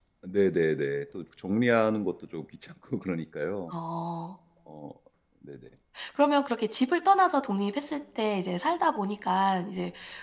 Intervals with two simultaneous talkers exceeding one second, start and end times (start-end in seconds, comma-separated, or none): none